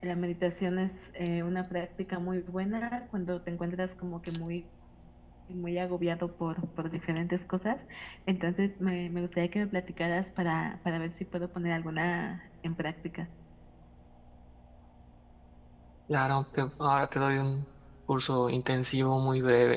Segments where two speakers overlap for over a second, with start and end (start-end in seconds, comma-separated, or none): none